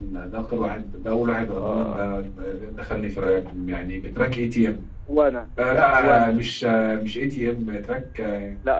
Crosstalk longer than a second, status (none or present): none